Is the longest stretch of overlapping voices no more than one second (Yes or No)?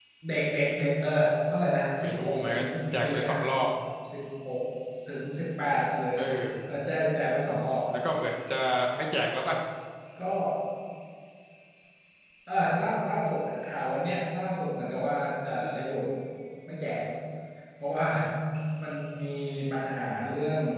No